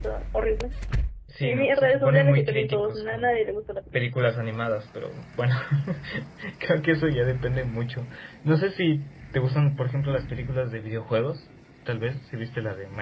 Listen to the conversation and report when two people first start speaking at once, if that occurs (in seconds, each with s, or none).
1.4 s